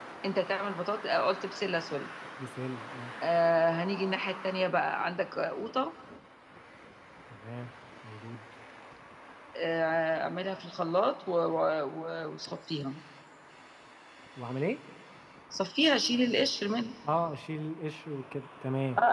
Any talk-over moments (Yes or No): No